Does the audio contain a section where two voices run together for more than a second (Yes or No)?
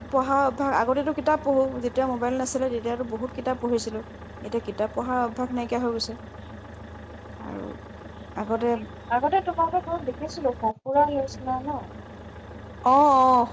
No